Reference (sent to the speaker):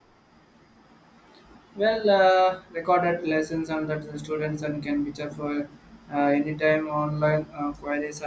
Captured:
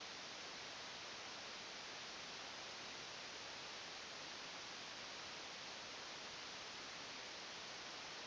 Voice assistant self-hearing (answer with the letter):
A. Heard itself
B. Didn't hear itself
B